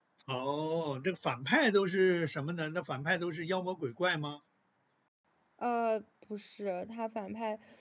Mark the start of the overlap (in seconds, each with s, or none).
none